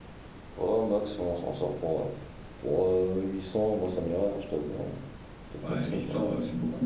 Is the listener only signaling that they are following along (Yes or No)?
No